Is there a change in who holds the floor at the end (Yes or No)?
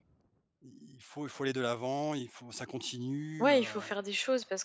Yes